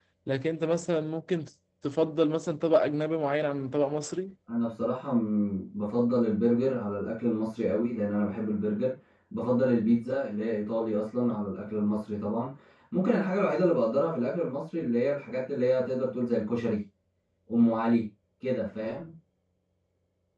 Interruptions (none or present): none